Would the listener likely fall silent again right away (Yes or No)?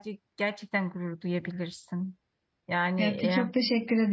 No